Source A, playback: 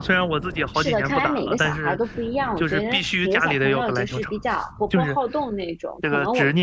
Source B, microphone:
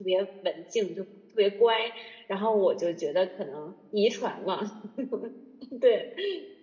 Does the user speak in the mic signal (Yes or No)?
Yes